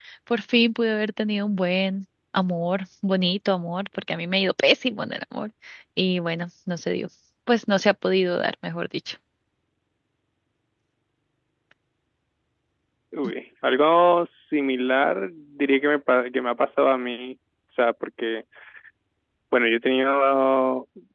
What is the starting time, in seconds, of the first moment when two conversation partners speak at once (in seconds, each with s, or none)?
none